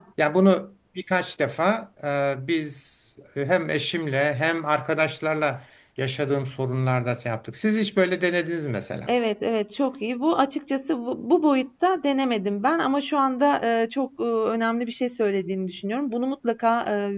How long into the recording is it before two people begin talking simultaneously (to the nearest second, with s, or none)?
none